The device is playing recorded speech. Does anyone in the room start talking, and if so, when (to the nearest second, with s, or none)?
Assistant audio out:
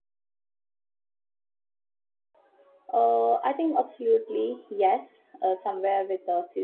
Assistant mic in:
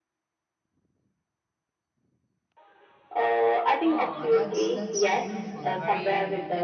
4 s